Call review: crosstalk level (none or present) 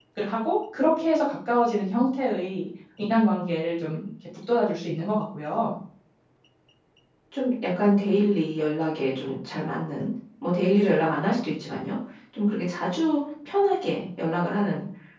none